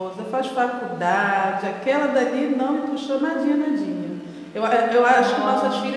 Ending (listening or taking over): listening